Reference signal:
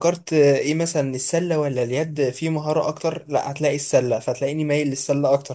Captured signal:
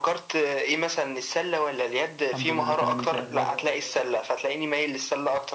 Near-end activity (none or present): present